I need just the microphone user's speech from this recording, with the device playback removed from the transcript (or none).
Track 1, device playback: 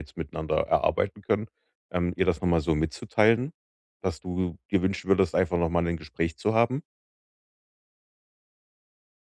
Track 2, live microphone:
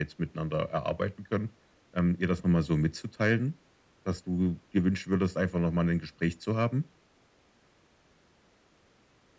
none